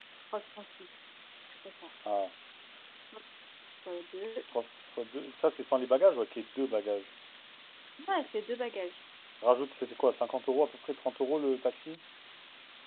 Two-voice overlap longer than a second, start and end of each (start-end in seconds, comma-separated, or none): none